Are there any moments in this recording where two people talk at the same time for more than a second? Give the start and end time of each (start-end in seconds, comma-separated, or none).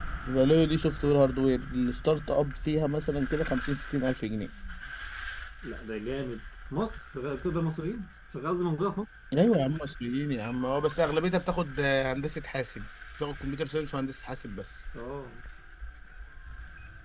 none